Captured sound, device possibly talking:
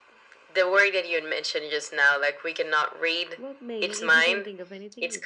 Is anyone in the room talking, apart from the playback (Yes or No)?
Yes